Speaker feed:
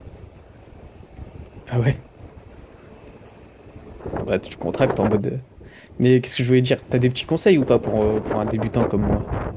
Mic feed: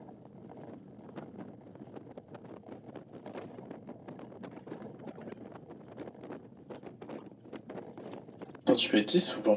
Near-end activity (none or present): present